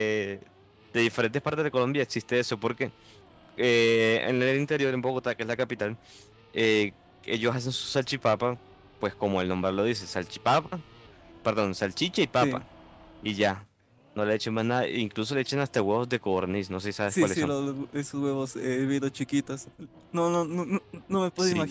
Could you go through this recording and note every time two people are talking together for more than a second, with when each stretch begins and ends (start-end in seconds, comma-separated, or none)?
none